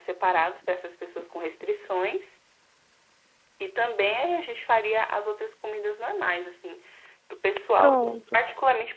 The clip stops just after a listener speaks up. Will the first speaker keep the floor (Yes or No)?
Yes